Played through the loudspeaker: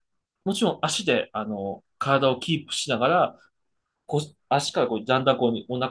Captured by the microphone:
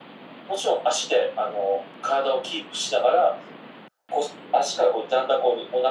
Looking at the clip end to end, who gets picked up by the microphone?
echo only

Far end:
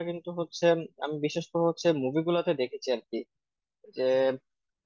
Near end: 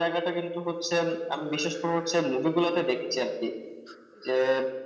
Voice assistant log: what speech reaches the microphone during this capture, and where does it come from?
echo only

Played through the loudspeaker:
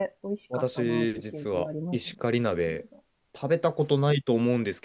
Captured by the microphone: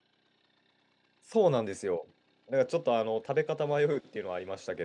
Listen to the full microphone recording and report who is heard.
user only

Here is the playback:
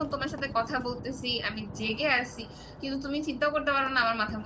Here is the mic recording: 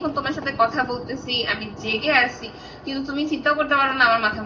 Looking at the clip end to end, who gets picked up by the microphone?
echo only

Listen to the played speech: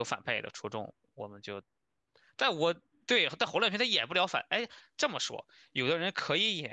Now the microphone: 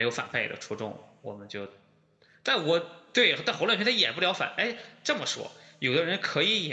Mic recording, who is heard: echo only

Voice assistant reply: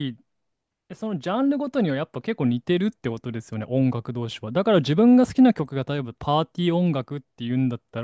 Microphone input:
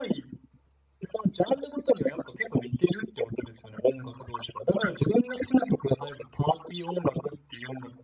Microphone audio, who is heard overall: echo only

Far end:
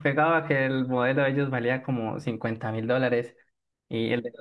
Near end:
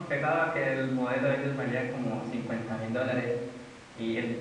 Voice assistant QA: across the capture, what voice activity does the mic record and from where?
echo only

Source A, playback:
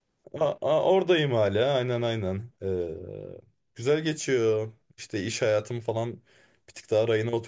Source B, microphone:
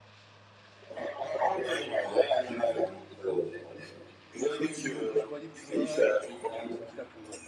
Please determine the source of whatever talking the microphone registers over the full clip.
both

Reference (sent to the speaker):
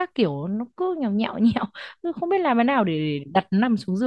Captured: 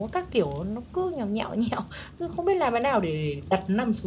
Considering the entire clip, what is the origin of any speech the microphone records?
echo only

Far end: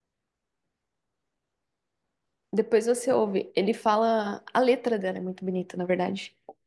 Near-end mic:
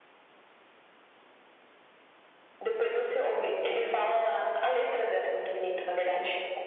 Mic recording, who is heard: echo only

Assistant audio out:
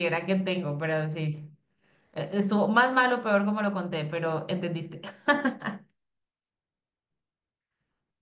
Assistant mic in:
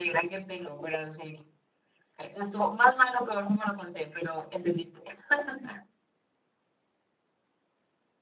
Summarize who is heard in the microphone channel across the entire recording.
echo only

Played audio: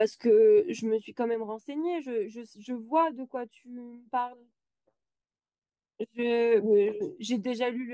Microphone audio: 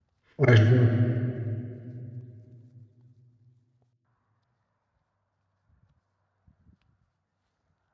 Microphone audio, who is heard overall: user only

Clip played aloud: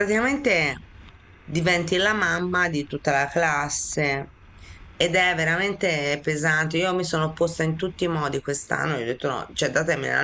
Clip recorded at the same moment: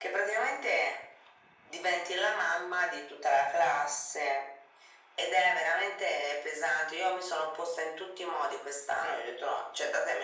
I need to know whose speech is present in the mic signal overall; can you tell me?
echo only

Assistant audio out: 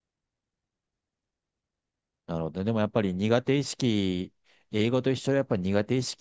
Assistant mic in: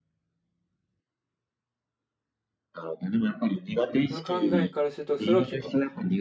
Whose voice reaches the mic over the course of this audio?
both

